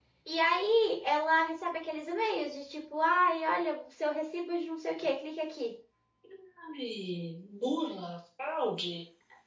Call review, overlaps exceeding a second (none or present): none